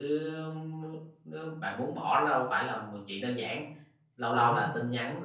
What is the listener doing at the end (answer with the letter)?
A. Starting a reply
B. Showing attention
B